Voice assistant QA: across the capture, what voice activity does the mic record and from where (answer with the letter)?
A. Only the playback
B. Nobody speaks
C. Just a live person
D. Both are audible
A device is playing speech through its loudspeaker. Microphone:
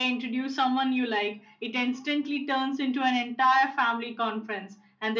A